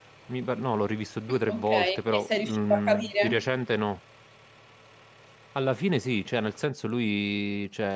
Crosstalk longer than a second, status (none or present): present